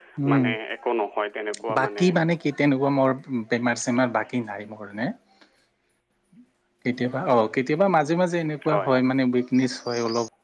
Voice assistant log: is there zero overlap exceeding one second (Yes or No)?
Yes